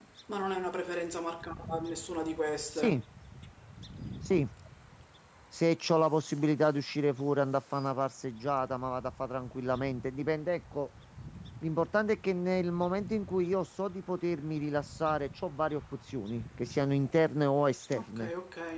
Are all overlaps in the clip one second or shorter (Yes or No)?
Yes